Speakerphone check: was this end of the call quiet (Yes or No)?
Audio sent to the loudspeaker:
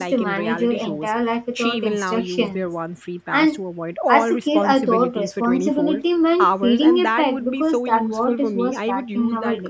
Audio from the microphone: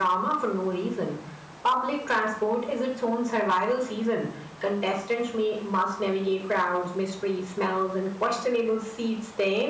No